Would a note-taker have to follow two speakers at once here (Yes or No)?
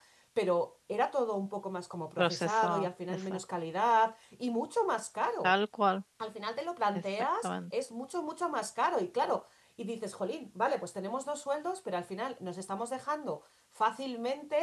Yes